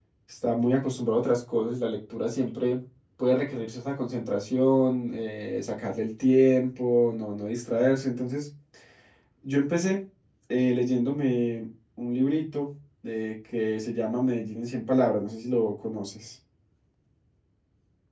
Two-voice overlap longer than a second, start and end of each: none

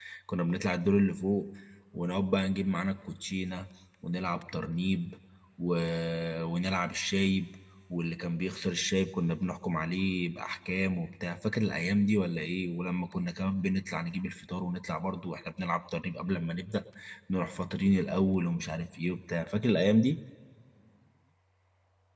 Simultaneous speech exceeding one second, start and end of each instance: none

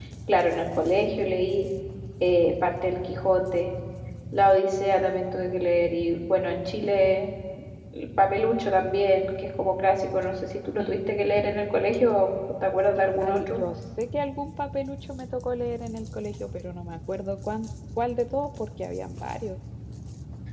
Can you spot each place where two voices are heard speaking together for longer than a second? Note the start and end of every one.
none

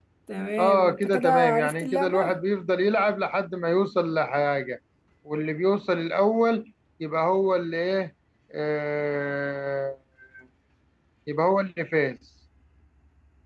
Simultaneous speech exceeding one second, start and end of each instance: 0.6-2.4

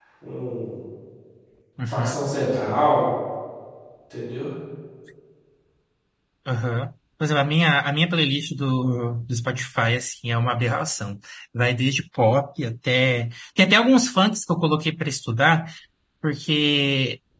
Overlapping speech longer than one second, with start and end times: none

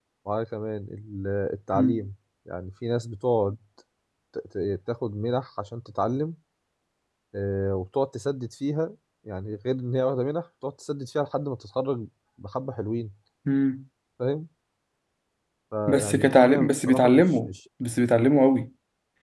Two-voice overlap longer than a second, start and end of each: 15.9-17.5

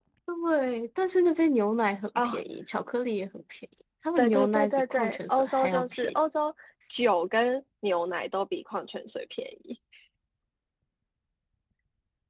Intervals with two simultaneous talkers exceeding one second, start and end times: 4.2-6.1

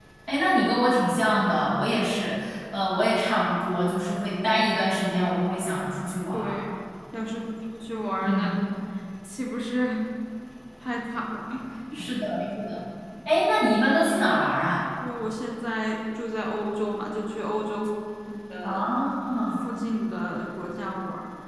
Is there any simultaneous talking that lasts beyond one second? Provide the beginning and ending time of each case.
none

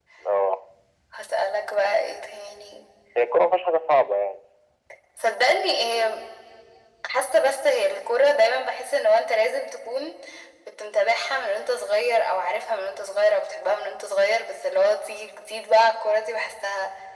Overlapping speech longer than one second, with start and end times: none

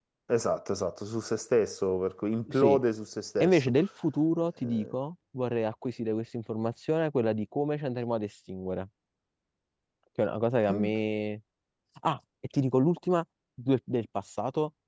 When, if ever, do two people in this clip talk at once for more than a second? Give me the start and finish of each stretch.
none

